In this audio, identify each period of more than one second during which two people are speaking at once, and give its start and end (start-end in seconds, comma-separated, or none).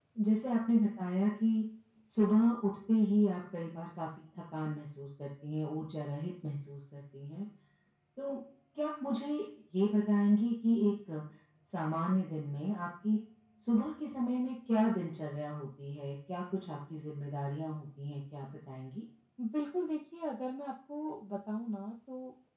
none